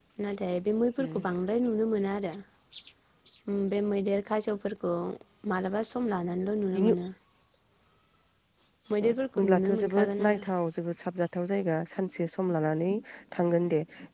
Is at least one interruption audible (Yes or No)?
Yes